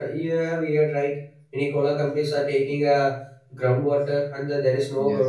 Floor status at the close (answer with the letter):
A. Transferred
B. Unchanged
B